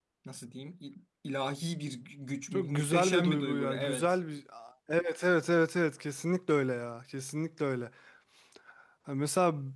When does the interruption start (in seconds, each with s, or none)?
2.5 s